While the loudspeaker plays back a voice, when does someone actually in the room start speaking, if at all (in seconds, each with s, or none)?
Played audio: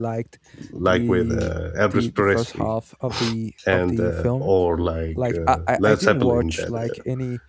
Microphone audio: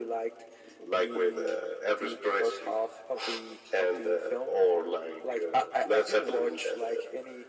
none